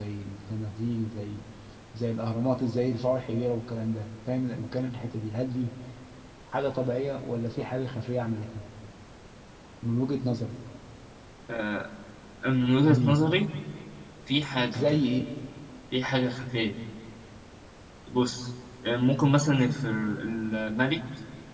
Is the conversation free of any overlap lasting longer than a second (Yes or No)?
Yes